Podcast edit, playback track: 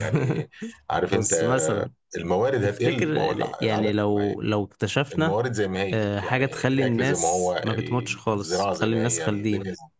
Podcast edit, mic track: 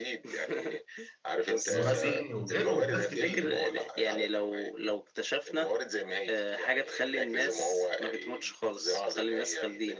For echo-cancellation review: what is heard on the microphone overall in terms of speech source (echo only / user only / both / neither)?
both